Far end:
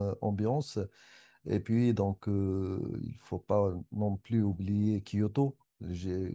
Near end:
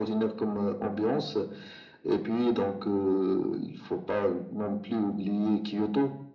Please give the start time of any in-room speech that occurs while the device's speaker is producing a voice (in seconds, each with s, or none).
none